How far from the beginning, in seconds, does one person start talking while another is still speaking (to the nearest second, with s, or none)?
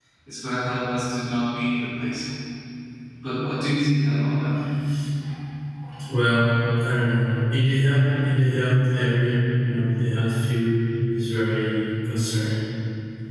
none